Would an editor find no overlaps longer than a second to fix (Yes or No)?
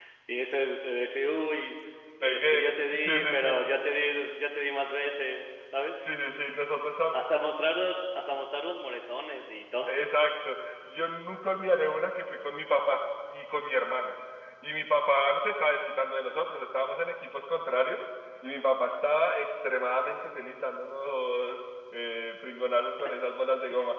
No